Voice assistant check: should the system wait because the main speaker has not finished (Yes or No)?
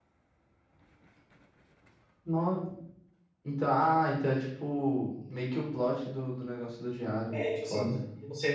No